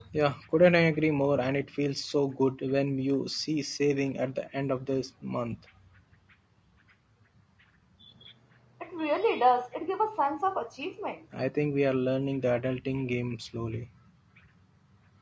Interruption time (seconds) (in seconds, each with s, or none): none